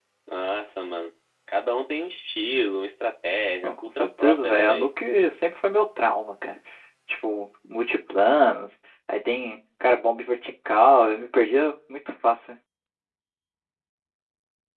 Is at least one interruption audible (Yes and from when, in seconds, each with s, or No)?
Yes, from 3.6 s